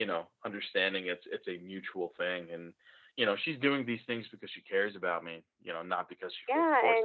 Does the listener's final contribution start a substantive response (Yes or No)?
Yes